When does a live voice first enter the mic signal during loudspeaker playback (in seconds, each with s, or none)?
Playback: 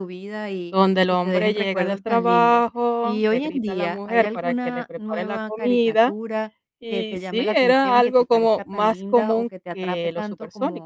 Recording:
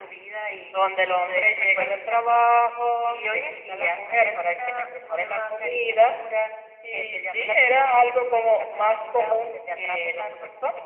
none